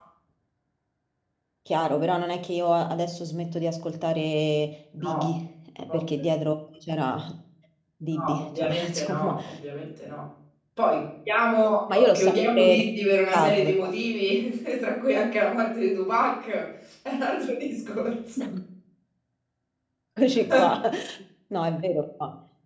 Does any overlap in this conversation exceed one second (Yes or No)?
Yes